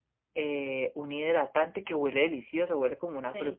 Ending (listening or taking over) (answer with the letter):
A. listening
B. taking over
A